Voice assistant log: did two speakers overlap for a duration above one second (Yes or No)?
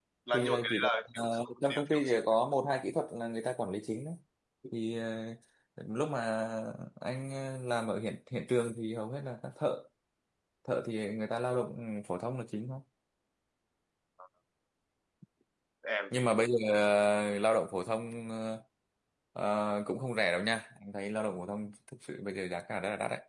Yes